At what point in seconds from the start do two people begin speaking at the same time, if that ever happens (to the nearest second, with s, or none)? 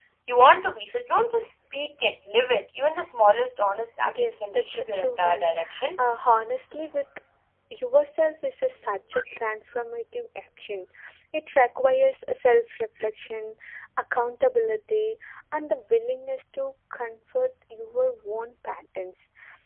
4 s